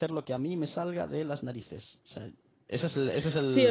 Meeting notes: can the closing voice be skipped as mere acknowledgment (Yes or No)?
No